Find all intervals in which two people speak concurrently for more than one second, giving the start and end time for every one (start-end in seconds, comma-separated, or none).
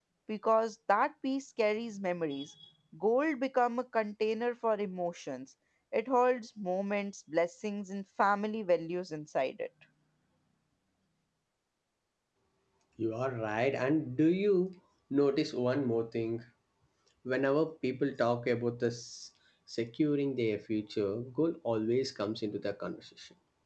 none